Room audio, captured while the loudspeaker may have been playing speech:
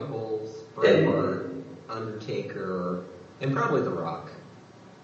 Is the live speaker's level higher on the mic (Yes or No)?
Yes